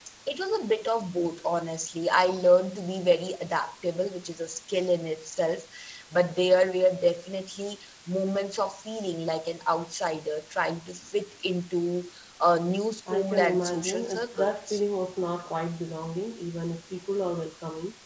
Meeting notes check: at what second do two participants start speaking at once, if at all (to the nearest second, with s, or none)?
13 s